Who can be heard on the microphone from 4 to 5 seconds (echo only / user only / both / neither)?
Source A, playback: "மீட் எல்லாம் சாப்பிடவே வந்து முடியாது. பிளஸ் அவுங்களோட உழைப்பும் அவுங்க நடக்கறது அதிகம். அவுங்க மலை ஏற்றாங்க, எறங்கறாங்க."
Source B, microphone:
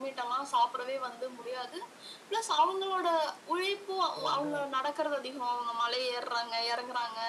both